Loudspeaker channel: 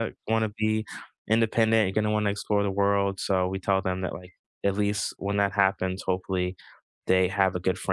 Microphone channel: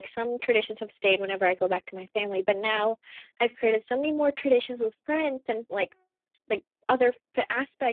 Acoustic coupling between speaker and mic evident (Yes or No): No